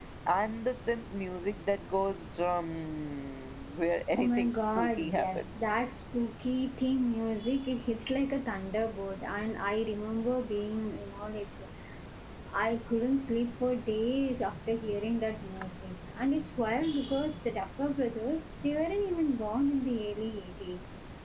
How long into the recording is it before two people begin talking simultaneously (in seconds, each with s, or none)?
4.2 s